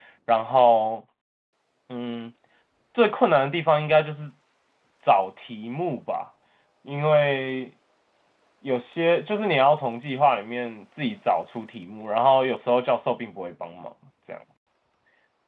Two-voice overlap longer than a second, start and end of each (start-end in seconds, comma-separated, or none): none